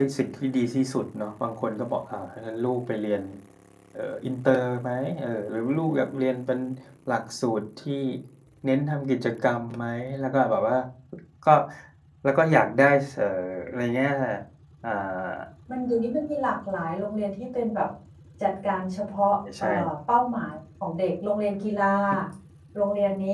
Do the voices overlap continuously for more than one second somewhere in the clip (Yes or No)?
No